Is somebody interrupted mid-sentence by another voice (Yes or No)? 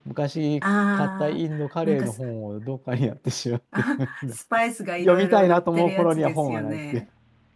Yes